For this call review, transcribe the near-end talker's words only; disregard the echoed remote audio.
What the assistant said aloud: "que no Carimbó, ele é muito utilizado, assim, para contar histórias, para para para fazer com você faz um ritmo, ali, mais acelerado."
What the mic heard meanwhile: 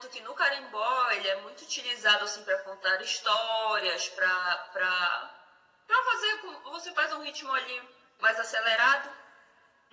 none

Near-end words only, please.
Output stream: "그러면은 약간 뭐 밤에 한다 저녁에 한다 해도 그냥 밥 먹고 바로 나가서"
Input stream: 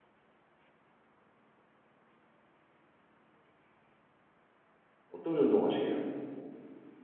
어떤 운동 하시게요?

